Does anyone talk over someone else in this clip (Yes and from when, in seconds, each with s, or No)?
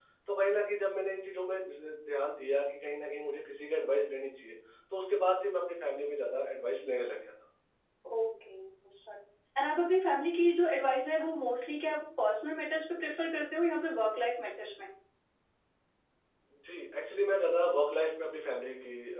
No